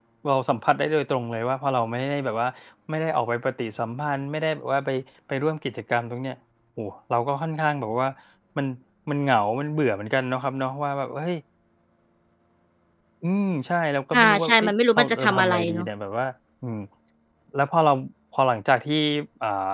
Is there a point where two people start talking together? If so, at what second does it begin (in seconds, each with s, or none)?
14.1 s